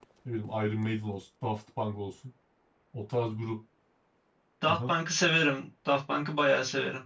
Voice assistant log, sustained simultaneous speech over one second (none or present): none